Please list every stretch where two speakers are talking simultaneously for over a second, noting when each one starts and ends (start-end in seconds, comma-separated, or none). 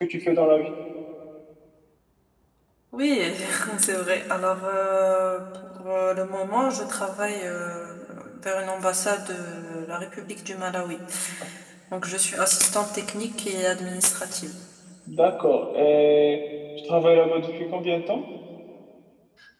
none